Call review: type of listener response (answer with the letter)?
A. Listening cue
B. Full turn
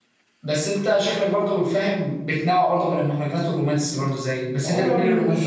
B